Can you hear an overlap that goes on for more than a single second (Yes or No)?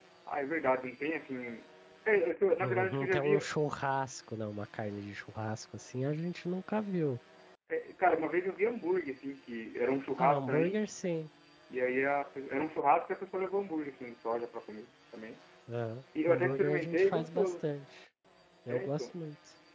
Yes